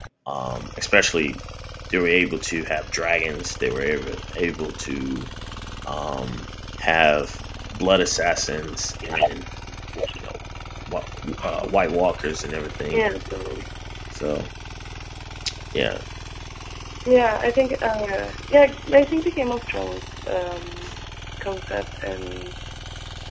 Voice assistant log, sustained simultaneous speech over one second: none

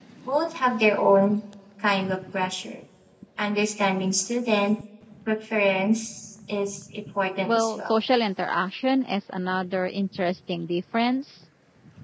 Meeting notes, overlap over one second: none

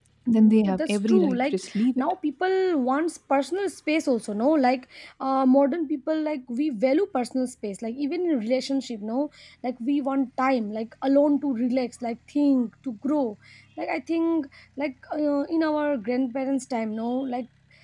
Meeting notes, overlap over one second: present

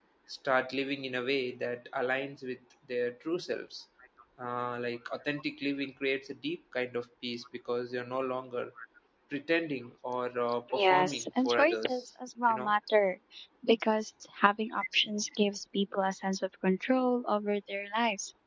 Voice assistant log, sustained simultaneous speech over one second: present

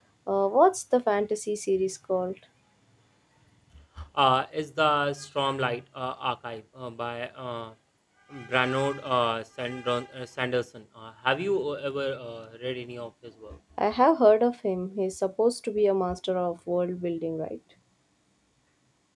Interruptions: none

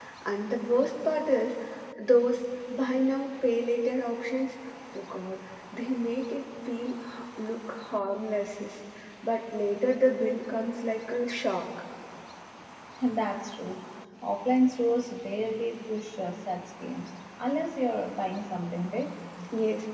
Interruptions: none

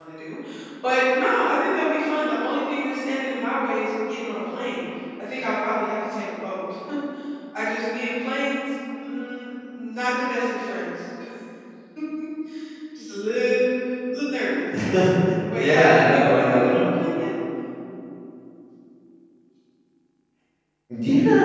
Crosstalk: present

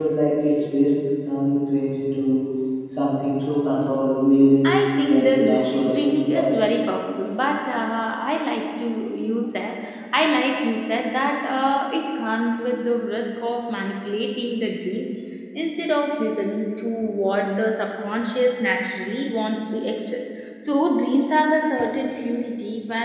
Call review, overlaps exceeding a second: present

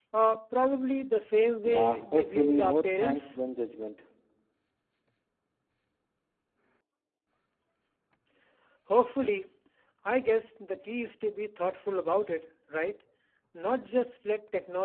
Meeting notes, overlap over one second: present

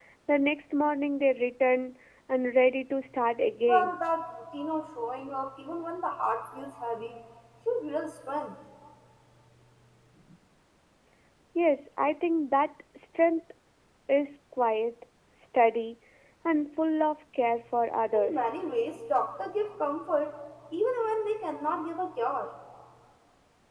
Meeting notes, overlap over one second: none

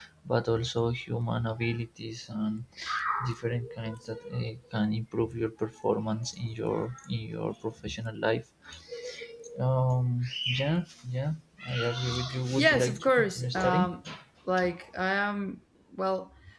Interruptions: present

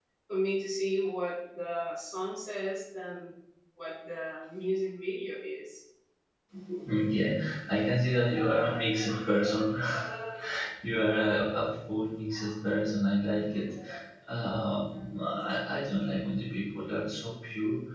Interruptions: none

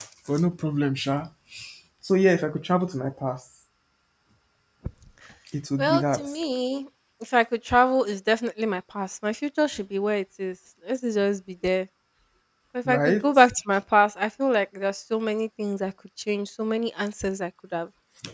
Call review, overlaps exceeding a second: none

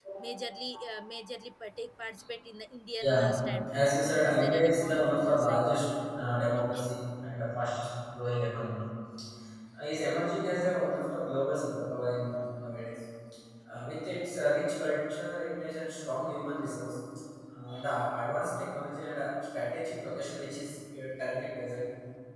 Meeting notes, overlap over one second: present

